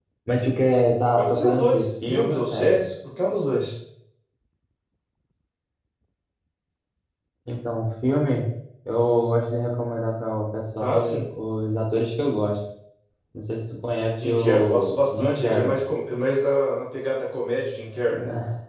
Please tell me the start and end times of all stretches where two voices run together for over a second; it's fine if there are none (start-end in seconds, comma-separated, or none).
1.1-2.8, 14.2-15.8